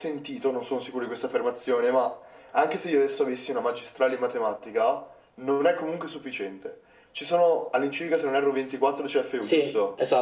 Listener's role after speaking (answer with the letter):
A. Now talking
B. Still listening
A